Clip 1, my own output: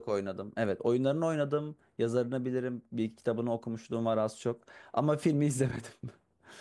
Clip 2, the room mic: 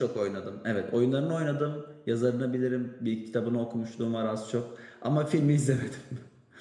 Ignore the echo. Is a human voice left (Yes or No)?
No